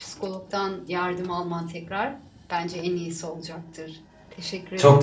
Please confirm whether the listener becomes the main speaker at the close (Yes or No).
Yes